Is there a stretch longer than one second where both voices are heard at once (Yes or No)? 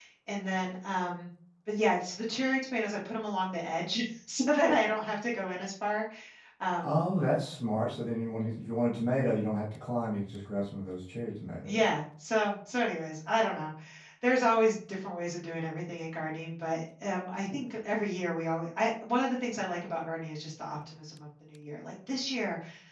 No